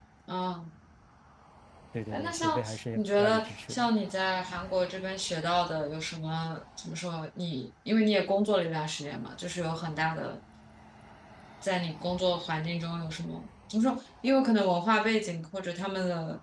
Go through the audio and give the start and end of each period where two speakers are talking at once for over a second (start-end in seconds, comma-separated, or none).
2.1-3.9